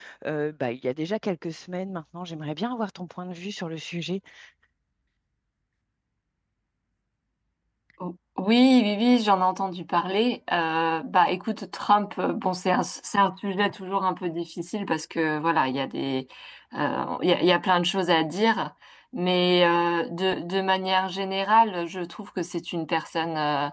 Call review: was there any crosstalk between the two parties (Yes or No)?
No